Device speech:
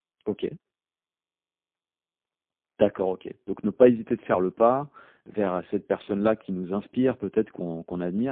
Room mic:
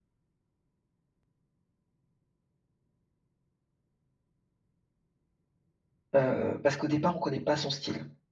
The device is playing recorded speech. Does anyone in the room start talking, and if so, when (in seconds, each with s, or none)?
6.2 s